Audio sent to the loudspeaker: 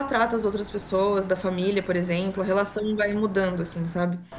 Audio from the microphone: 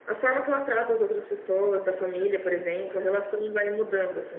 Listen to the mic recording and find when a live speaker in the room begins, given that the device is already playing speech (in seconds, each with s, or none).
none